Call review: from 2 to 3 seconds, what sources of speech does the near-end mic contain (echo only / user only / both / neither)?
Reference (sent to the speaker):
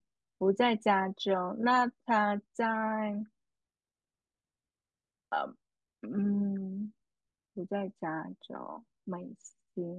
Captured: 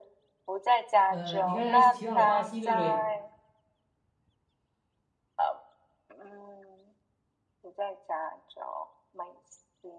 both